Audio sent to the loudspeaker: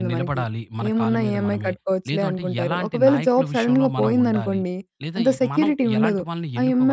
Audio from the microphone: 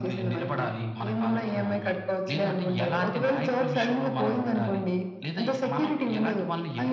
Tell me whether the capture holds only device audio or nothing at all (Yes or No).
Yes